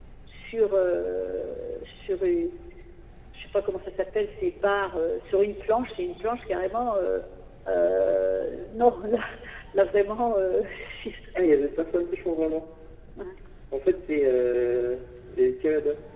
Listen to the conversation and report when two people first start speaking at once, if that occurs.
none

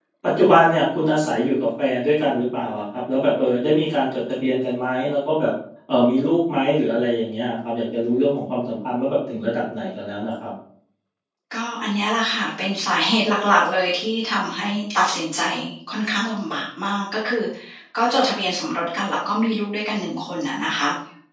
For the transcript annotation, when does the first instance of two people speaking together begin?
none

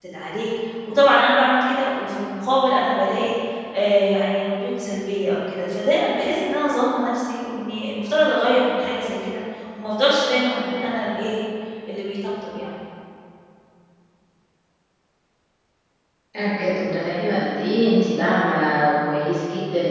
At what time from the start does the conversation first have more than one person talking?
none

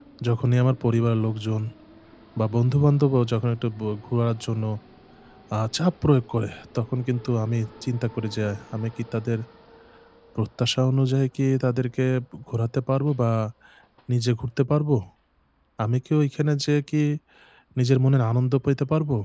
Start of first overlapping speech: none

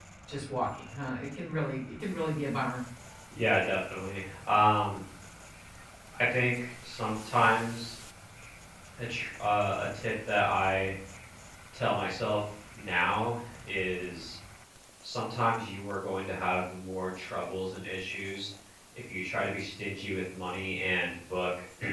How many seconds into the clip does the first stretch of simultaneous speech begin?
none

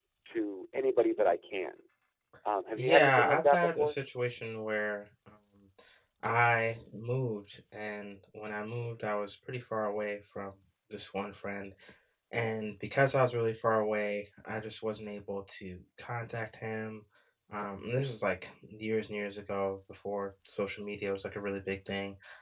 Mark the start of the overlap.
2.8 s

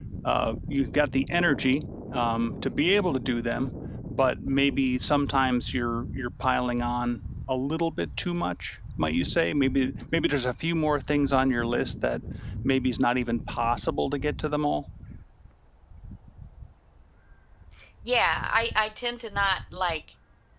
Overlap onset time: none

